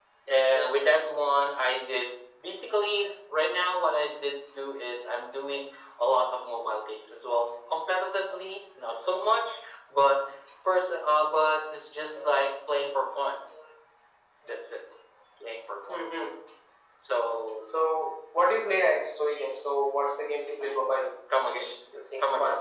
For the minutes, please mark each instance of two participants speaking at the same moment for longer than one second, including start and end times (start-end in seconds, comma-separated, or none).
none